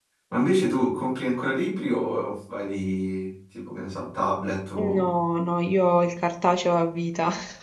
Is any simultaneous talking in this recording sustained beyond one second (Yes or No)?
No